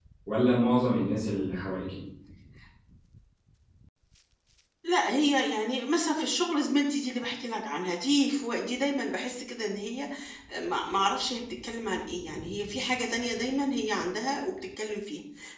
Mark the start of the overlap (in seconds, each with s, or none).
none